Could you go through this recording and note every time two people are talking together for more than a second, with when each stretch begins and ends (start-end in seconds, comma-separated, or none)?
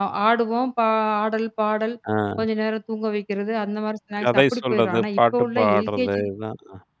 4.2-6.2